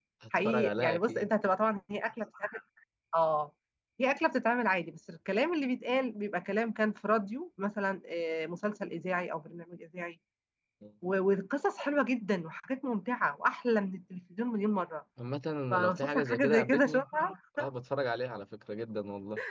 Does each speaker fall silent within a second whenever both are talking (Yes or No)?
No